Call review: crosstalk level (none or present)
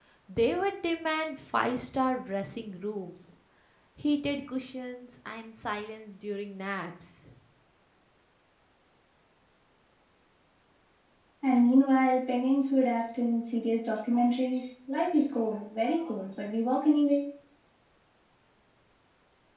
none